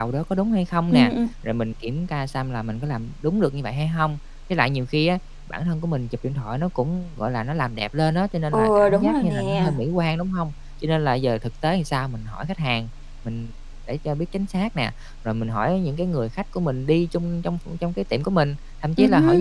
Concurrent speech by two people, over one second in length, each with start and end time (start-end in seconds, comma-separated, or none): 8.5-9.7